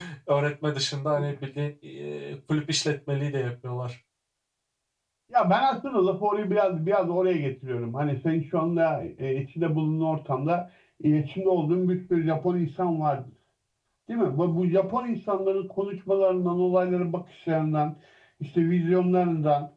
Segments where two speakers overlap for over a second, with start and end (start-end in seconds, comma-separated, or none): none